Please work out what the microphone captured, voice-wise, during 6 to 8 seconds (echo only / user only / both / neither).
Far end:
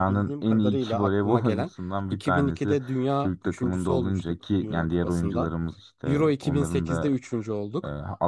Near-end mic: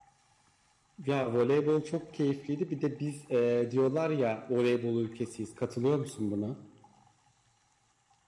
user only